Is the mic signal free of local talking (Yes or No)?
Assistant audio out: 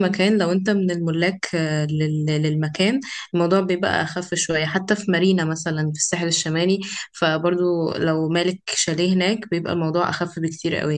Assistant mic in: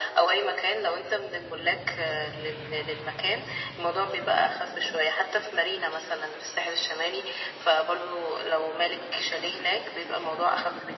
Yes